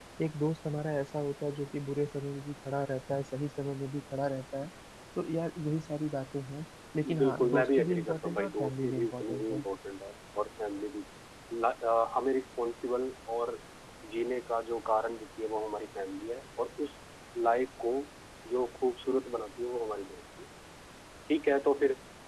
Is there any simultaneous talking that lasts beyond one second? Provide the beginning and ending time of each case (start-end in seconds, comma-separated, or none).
7.2-9.6